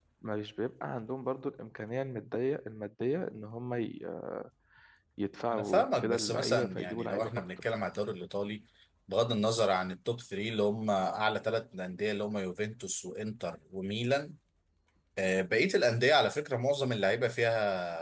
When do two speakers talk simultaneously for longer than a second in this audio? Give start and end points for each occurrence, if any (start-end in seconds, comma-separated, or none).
5.5-7.7